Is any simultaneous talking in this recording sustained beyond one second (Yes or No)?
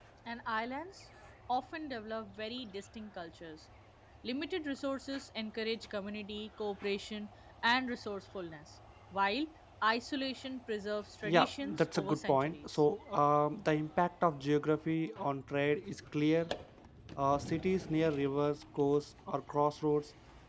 Yes